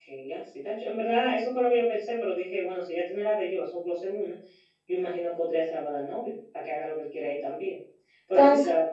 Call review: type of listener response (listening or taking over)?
listening